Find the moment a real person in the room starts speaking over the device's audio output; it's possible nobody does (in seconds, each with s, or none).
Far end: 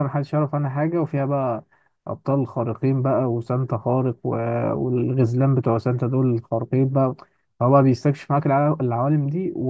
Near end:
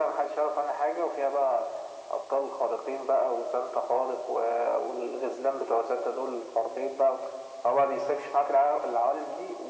none